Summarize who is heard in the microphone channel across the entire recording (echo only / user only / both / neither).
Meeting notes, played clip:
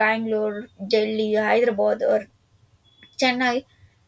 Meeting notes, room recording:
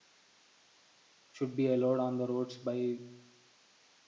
user only